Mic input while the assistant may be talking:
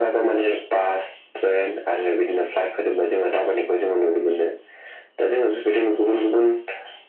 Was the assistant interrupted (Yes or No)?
No